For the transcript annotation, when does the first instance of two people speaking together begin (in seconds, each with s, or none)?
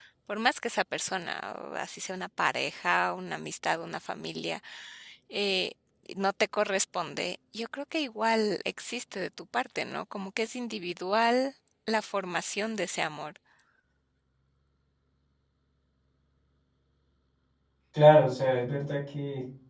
none